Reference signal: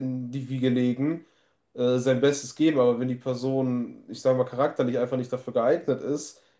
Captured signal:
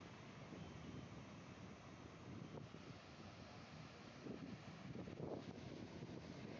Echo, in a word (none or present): none